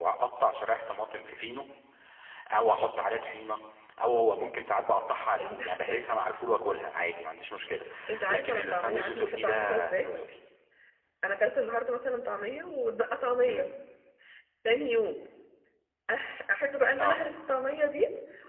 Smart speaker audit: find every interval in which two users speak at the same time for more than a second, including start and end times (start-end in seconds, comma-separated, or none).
8.3-10.1